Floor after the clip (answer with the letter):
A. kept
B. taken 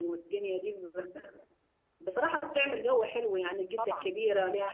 A